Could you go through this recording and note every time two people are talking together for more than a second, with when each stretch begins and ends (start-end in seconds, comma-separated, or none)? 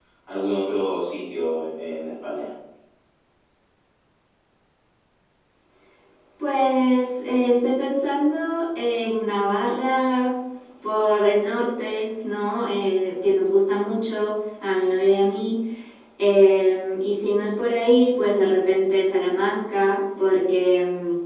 none